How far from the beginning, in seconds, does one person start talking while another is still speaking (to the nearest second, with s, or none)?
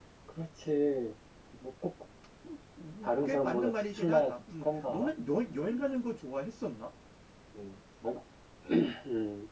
3 s